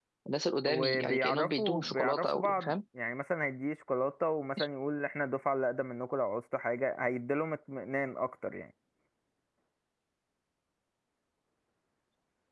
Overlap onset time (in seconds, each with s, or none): 0.7 s